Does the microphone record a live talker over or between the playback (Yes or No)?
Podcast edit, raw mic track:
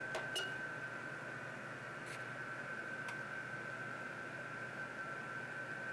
No